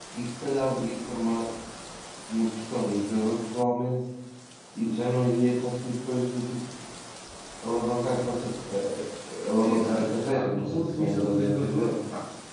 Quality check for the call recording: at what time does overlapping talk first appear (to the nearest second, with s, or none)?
10 s